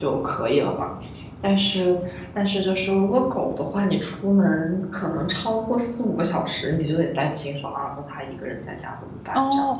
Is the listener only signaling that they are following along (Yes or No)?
No